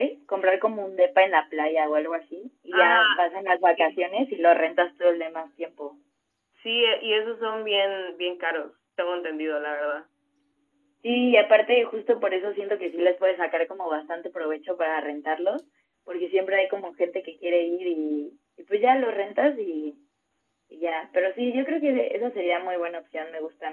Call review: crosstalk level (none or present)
present